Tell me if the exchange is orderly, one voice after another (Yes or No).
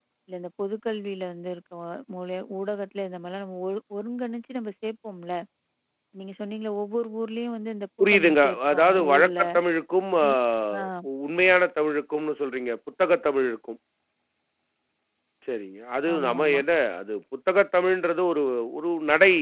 No